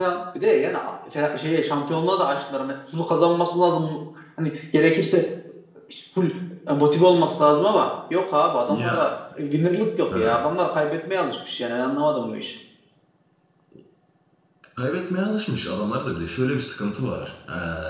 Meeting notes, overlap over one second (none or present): none